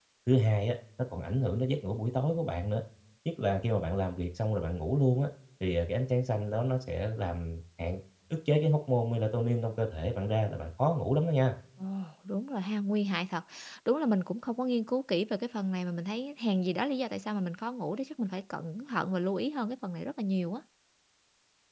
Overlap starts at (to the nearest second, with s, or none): none